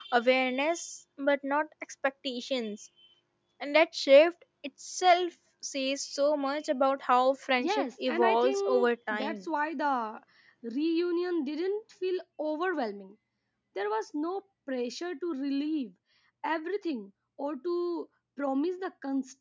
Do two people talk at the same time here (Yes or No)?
Yes